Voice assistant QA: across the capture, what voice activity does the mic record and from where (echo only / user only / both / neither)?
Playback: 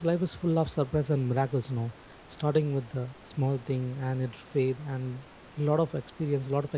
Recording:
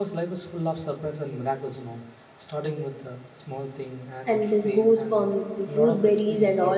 both